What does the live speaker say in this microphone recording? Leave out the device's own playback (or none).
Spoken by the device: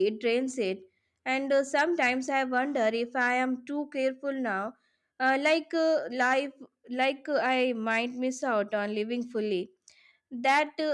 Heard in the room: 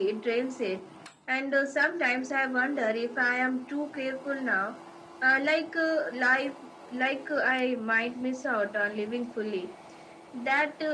none